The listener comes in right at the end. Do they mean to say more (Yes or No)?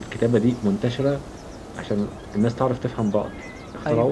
No